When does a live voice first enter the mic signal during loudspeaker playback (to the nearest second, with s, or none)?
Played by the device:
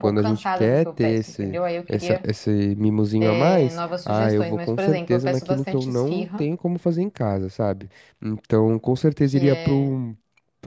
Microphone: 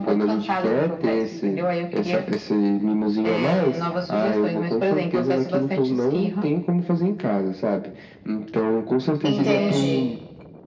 9 s